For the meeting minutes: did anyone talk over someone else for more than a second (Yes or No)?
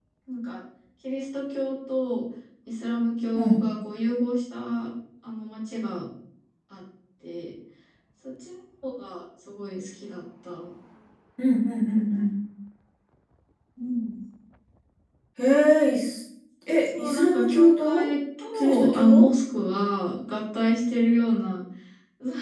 Yes